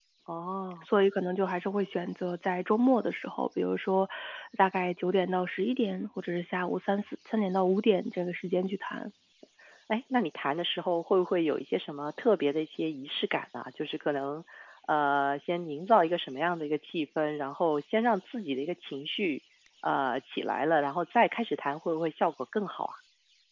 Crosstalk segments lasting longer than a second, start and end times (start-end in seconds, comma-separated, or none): none